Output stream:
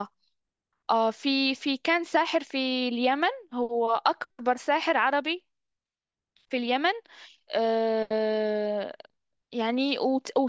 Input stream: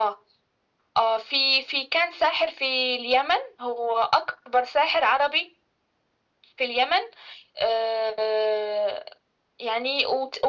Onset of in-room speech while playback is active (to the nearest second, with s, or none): none